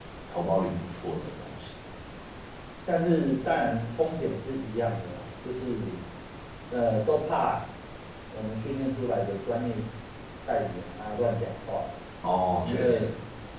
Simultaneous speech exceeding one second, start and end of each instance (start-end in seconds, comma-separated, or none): none